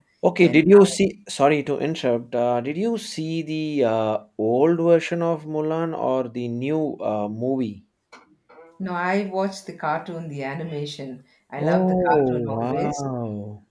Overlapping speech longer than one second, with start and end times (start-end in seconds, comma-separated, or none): 11.6-13.0